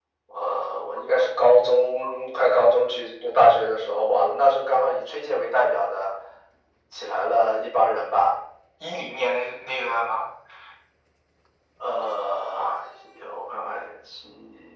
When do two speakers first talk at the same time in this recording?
none

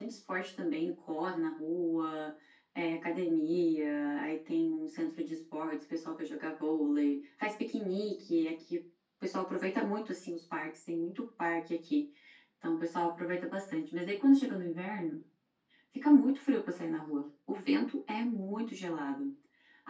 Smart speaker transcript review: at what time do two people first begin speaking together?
none

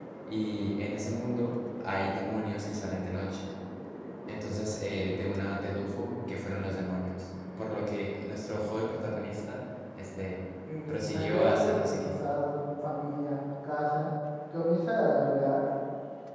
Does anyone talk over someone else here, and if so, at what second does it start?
10.9 s

